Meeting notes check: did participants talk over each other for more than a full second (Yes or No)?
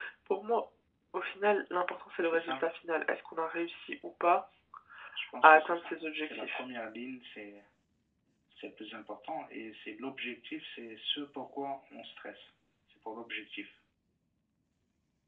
Yes